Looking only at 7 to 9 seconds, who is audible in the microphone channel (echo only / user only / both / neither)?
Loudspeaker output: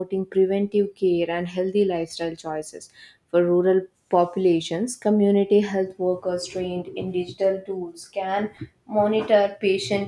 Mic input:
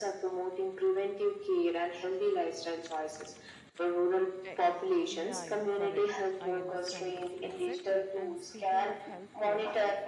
both